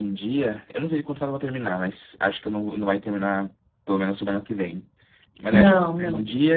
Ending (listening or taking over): listening